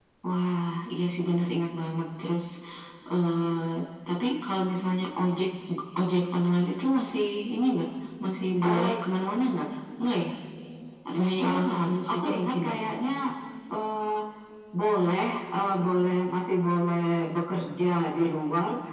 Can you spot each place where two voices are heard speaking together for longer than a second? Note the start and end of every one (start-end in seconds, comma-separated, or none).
11.1-12.7